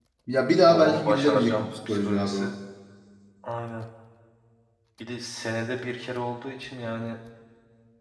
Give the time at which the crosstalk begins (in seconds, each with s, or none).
0.7 s